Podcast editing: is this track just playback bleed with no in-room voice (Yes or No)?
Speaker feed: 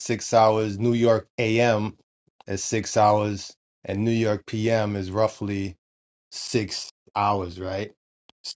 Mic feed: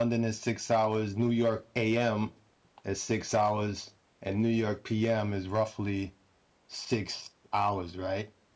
Yes